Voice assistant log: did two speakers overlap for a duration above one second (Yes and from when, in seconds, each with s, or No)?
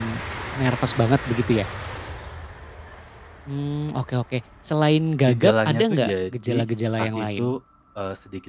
Yes, from 5.3 s